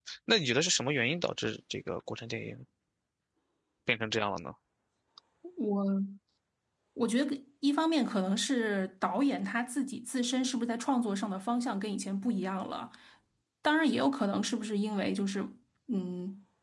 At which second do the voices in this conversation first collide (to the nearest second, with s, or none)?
none